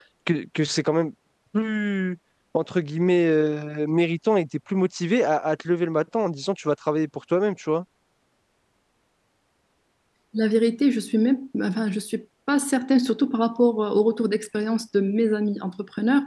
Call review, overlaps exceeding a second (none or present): none